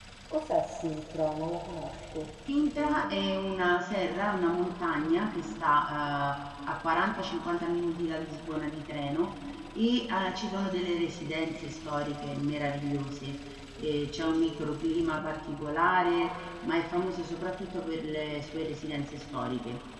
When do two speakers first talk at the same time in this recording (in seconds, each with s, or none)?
none